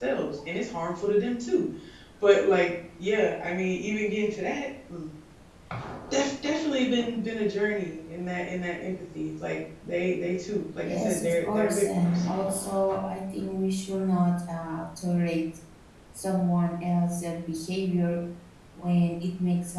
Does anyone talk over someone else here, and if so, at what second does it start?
10.7 s

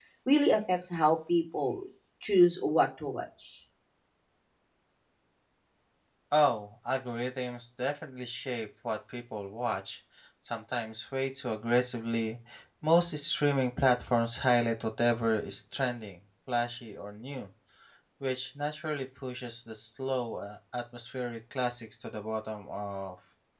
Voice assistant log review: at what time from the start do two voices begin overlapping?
none

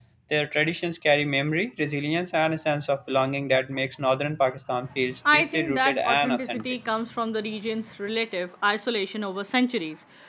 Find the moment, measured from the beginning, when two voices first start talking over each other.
5.2 s

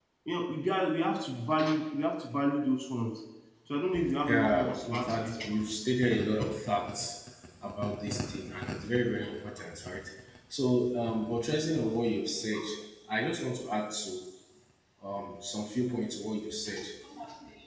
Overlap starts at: 4.3 s

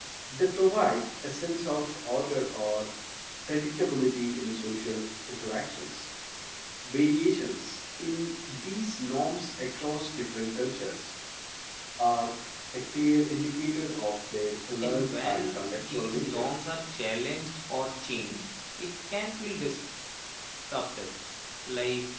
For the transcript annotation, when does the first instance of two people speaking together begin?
14.8 s

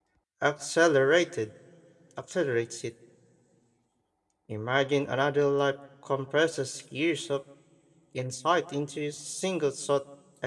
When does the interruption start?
none

